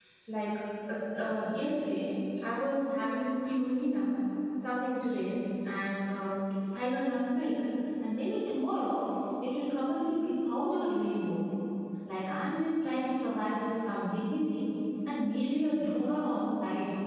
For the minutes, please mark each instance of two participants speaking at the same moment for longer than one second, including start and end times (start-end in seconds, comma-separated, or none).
none